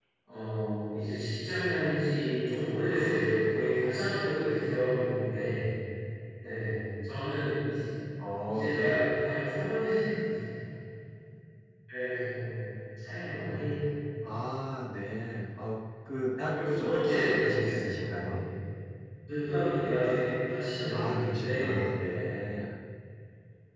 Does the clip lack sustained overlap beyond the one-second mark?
No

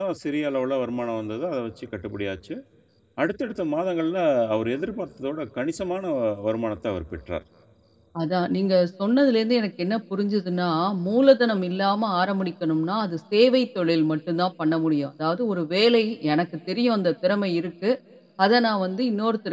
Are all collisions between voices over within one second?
Yes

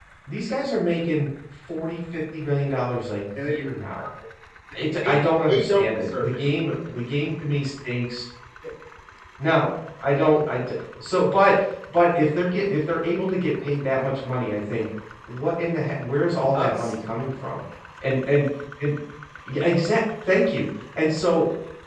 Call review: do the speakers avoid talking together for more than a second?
No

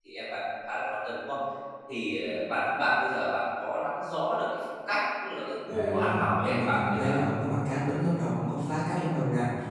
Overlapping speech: Yes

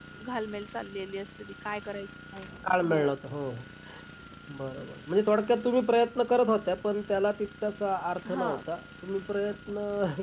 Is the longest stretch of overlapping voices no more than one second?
Yes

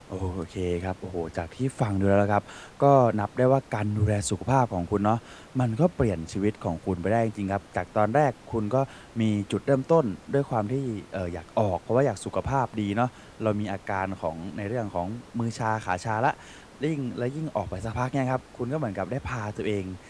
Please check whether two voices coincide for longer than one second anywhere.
No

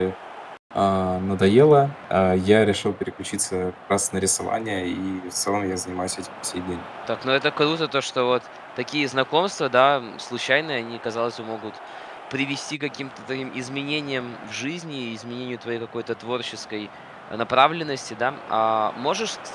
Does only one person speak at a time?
Yes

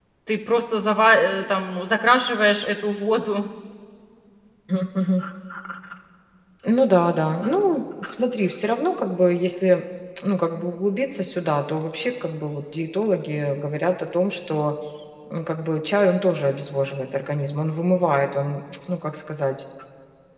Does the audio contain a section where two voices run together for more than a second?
No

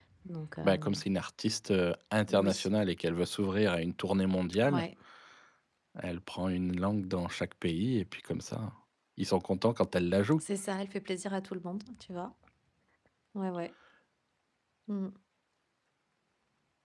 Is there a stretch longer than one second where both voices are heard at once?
No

